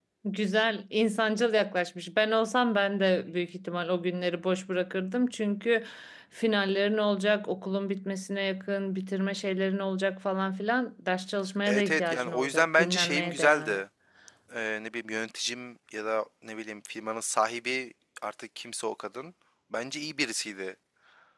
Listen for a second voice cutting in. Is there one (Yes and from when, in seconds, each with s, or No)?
Yes, from 11.7 s